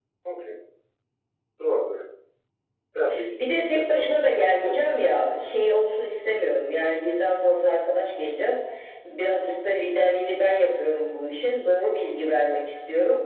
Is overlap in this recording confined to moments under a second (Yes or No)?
No